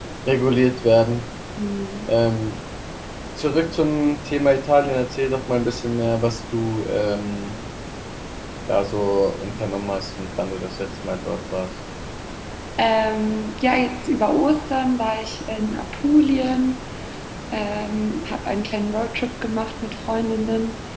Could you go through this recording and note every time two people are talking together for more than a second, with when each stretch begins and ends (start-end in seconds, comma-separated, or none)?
none